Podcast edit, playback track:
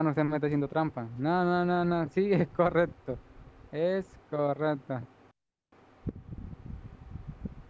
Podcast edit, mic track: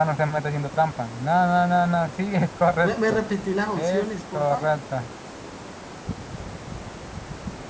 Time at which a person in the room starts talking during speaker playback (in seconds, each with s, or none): 2.8 s